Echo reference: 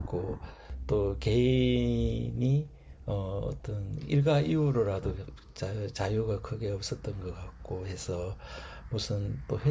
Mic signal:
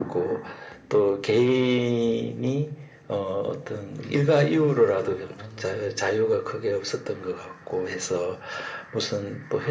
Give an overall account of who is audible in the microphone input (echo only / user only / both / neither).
both